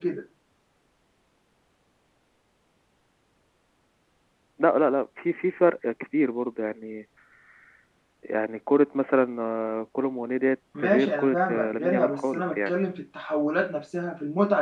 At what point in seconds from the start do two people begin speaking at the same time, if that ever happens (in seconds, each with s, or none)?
10.8 s